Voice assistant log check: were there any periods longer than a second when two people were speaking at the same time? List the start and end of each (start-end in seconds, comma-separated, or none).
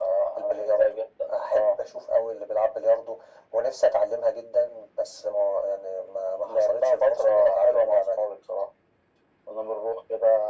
6.5-8.3